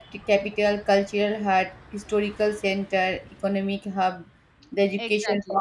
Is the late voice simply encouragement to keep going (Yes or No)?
Yes